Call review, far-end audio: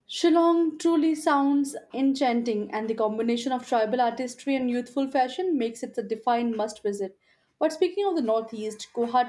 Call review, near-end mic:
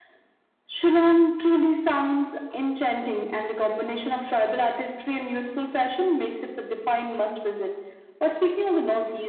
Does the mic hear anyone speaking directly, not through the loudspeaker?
No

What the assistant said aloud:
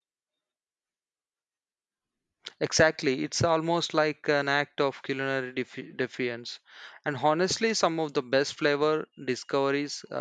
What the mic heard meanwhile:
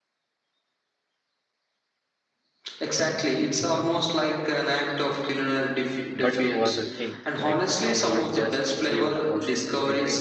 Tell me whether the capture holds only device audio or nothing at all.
No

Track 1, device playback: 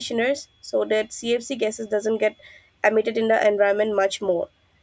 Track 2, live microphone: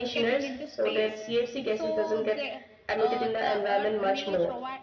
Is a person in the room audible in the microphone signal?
Yes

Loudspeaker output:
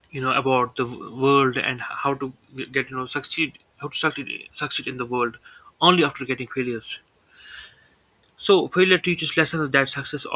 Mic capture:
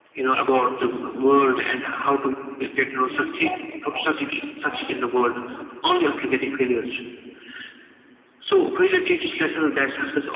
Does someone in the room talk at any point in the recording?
Yes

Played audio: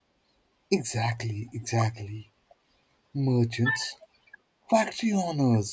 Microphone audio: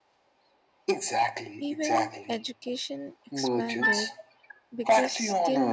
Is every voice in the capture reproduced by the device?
No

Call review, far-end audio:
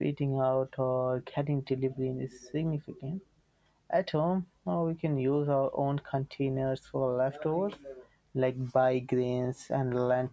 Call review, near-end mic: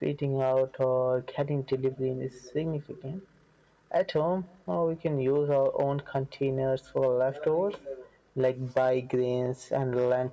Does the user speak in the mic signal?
No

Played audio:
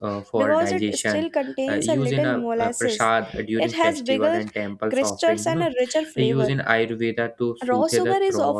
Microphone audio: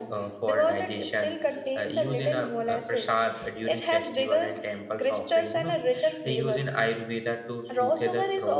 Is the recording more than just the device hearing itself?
No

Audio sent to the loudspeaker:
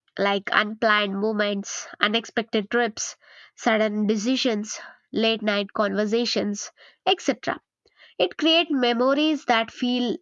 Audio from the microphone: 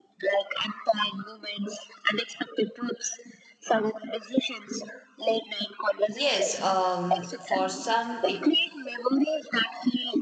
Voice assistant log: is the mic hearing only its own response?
No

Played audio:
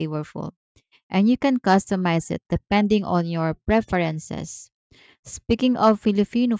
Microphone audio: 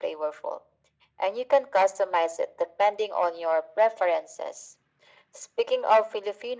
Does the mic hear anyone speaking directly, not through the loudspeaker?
No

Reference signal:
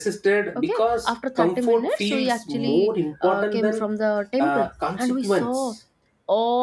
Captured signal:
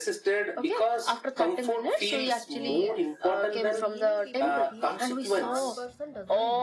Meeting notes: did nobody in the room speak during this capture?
No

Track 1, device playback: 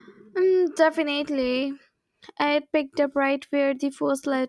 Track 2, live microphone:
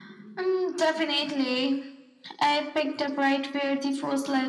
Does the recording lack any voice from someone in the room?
Yes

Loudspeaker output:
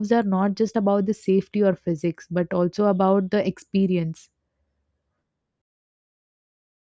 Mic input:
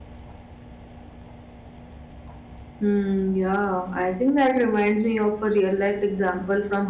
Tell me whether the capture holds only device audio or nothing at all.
No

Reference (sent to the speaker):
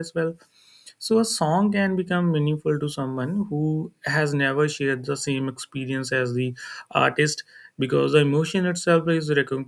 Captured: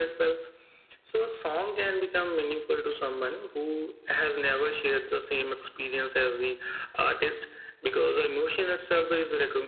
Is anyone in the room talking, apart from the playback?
No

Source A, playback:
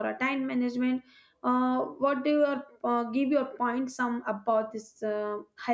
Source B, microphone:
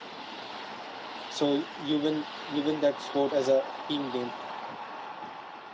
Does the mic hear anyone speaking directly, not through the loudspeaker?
Yes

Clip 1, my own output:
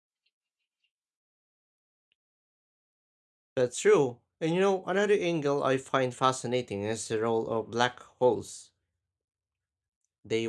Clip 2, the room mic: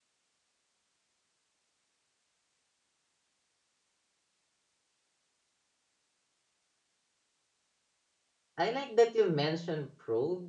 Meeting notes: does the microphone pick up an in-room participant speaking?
Yes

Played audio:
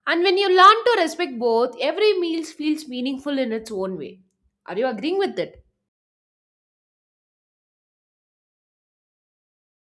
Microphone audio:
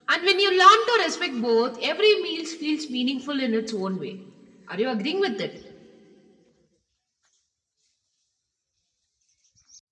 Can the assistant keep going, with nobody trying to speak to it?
Yes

